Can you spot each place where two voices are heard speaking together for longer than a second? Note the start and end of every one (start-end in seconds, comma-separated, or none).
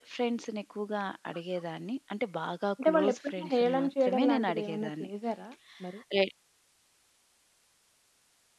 2.8-5.1